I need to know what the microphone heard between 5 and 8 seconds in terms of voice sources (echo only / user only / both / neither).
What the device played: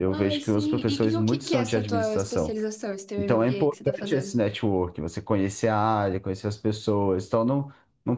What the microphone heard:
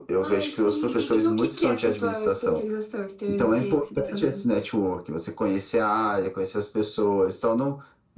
echo only